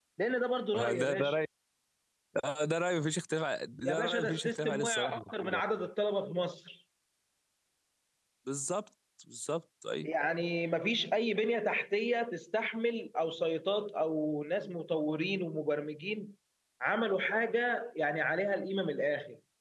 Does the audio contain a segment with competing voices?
Yes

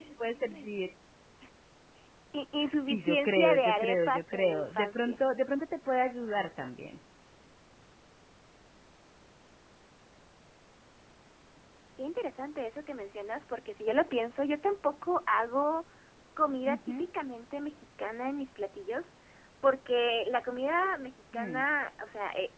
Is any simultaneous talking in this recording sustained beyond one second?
Yes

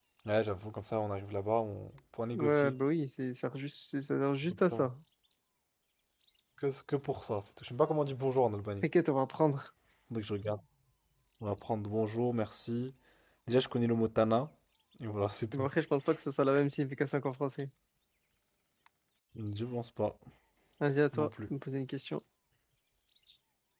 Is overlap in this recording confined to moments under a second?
Yes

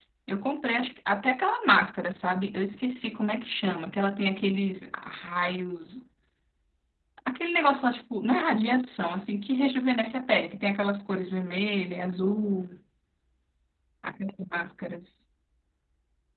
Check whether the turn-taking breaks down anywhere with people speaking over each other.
No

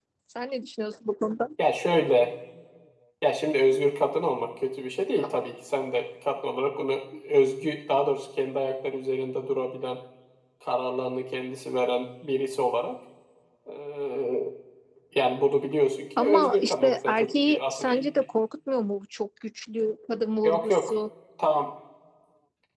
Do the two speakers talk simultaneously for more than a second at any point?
Yes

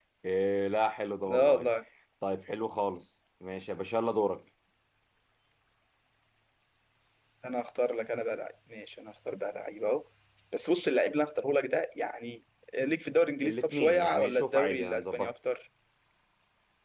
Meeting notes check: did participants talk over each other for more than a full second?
Yes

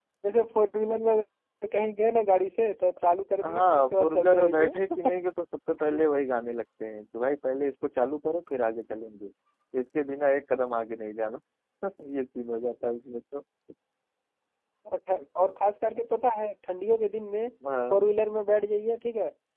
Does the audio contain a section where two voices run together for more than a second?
Yes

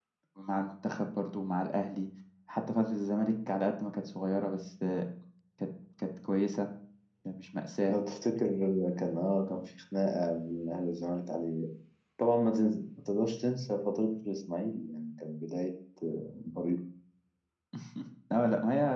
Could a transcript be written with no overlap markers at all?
Yes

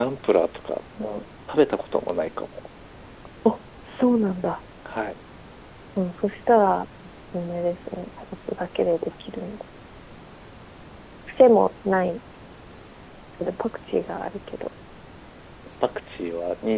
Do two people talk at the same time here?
No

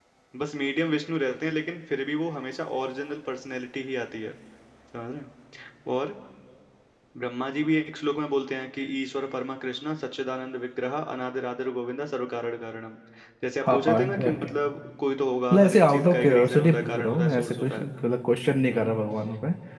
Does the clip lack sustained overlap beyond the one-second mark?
No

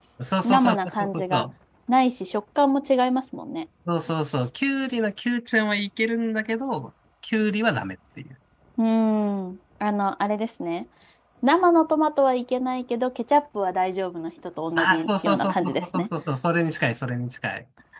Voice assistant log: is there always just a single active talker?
No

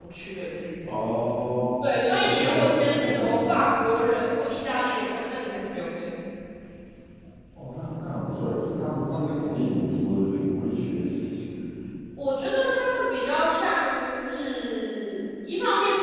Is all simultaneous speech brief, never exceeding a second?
No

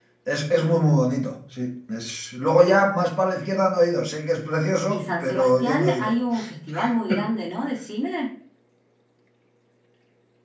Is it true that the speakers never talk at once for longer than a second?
No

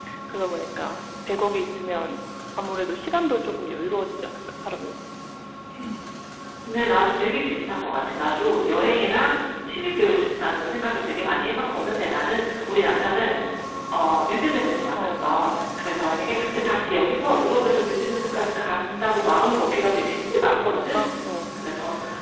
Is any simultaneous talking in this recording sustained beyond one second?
No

